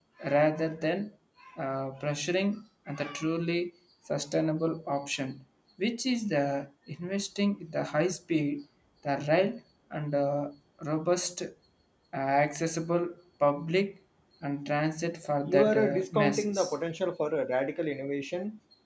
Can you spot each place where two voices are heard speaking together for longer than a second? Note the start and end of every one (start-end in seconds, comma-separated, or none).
15.4-16.7